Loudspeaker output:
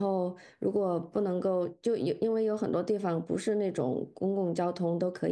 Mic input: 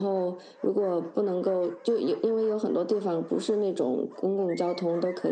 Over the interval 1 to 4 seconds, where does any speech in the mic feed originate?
echo only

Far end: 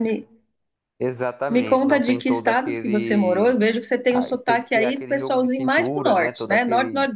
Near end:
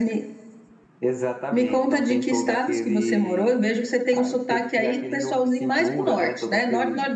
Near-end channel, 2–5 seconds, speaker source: echo only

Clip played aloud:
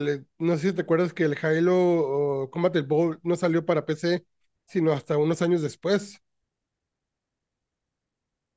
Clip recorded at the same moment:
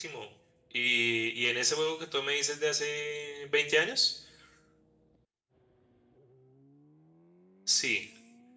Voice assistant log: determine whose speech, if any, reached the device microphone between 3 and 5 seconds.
user only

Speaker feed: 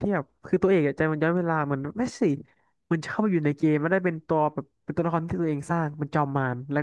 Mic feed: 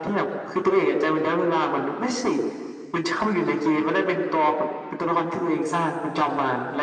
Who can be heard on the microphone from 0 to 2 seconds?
echo only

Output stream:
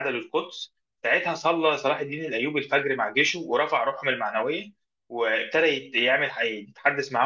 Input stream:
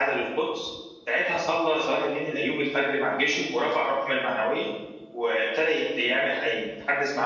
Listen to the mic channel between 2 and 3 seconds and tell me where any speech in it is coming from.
echo only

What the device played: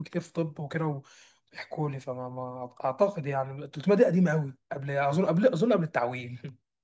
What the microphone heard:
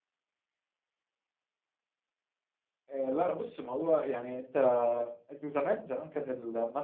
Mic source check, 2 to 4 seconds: user only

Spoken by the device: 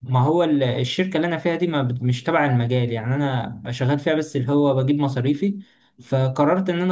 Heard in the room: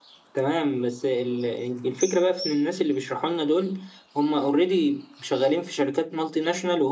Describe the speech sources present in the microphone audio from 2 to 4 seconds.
user only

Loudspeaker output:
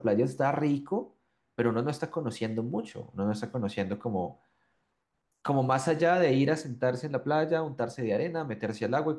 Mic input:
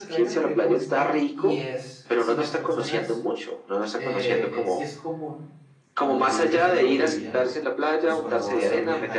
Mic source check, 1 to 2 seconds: both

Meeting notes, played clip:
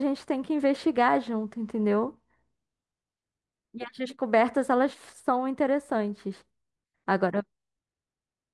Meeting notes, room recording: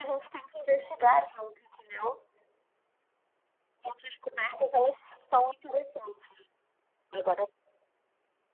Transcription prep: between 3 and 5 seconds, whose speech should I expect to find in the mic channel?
echo only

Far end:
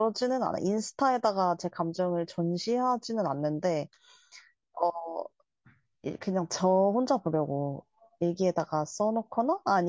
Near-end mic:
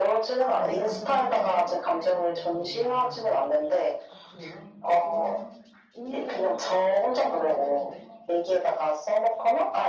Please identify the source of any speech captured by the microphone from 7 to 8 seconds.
both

